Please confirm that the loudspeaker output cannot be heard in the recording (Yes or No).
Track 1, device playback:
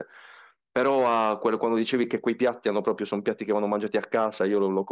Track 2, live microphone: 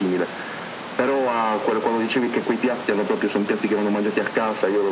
No